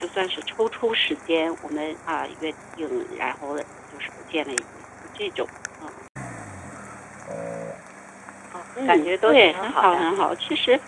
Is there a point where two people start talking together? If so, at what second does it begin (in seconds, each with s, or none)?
8.8 s